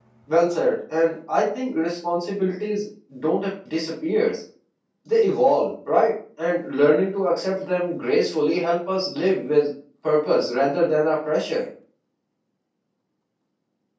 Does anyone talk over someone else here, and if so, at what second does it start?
none

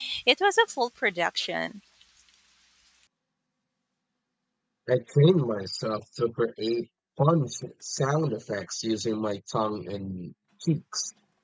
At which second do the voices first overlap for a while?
none

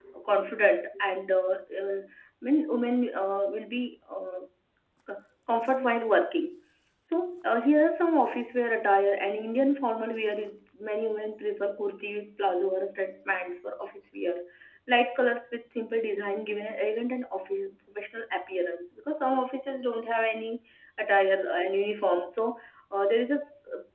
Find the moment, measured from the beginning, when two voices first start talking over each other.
none

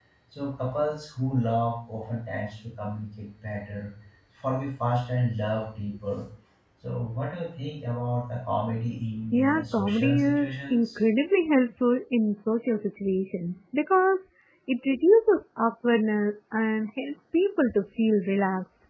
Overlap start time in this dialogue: 9.3 s

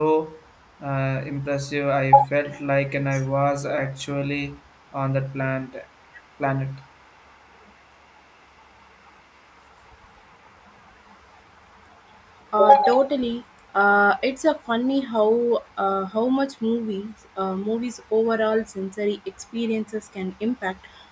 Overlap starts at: none

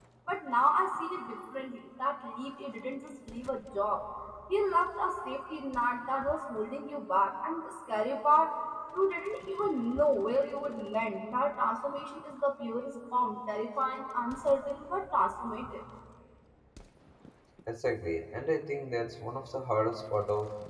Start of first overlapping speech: none

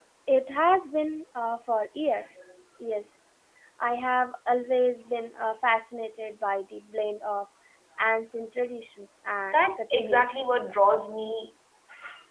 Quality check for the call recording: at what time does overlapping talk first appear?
9.5 s

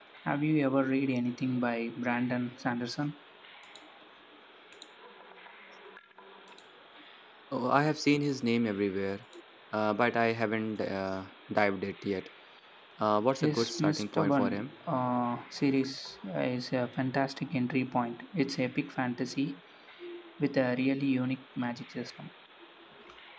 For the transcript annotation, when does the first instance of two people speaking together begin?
13.4 s

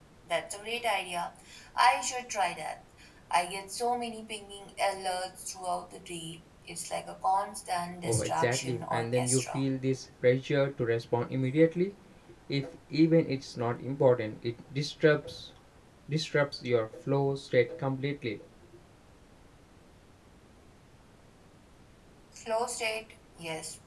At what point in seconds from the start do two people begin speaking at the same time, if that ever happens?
8.0 s

